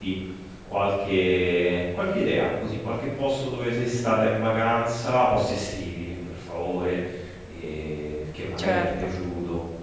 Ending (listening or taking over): listening